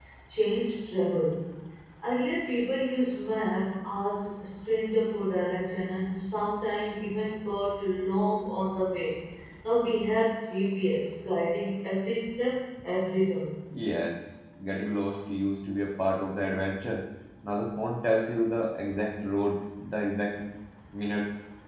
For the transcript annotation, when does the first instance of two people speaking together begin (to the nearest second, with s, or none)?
none